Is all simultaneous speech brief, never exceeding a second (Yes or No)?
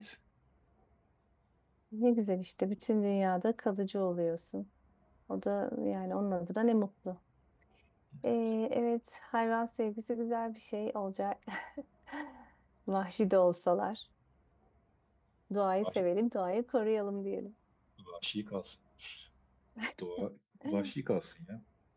Yes